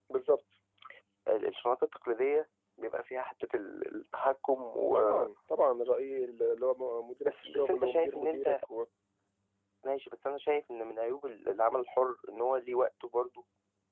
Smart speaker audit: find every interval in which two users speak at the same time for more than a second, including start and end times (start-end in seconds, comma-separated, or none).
7.2-8.6